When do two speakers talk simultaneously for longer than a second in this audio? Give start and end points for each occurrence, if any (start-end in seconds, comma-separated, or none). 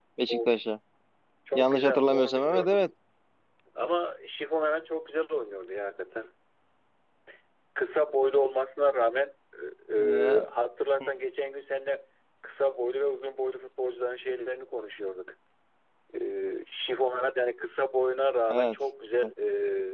1.5-2.9